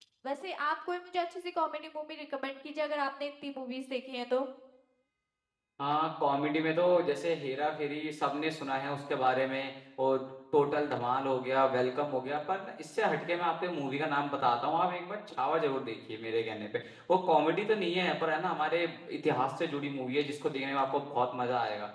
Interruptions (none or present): none